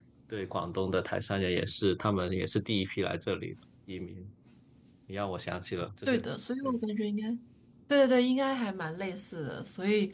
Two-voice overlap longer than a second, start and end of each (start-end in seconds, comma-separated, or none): none